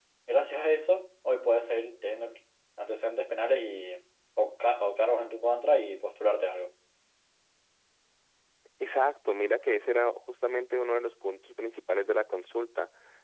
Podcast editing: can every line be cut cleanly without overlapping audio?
Yes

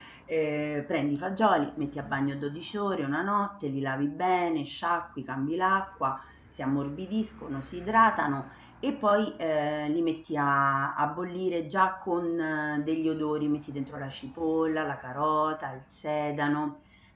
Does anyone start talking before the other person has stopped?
No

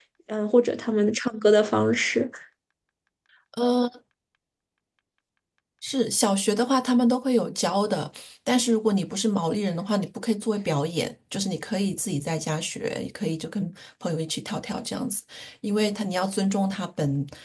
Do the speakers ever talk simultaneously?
No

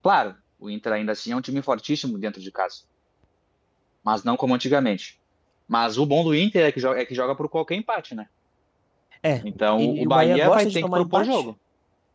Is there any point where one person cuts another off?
Yes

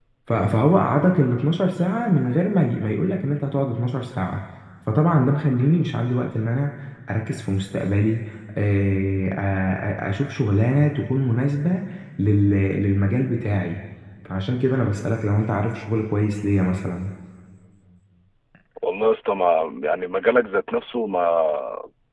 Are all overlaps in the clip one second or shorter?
Yes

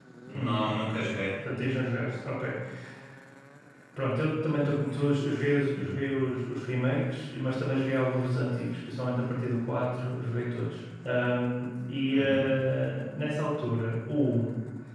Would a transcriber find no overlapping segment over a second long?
Yes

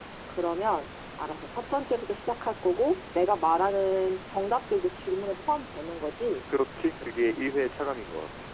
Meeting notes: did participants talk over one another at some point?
No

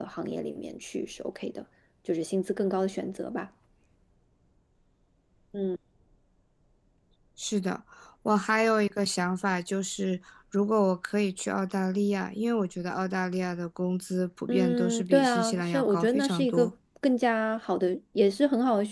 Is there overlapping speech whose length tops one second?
Yes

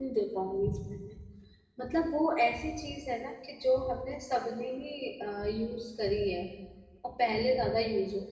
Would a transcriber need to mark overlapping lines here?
No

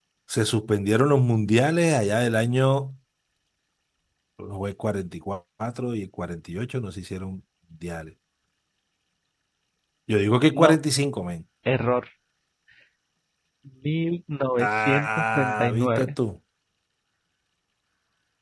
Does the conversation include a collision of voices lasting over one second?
Yes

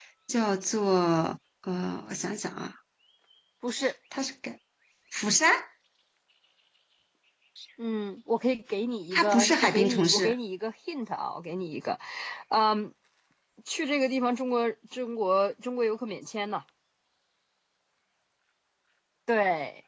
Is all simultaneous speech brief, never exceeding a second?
No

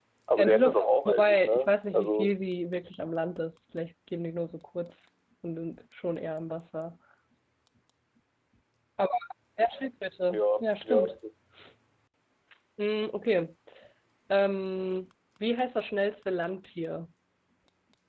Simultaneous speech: Yes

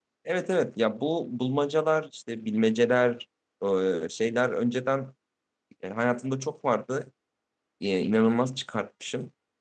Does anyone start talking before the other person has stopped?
No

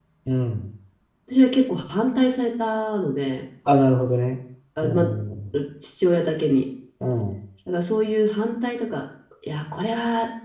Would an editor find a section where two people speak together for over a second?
No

